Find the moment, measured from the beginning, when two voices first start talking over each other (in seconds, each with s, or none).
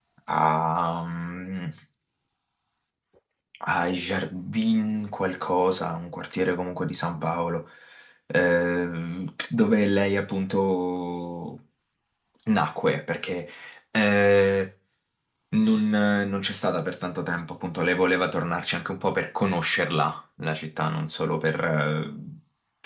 none